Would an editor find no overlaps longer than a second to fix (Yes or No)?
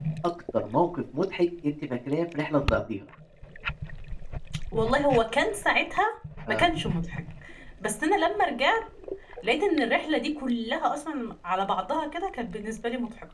Yes